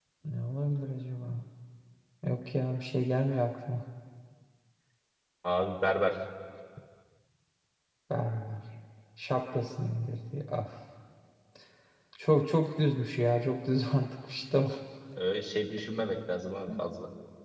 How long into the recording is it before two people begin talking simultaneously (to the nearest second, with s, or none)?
none